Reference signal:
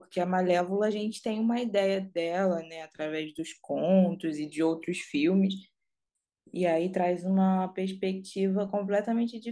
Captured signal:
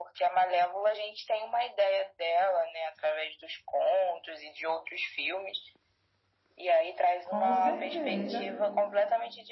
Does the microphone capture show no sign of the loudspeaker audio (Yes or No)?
No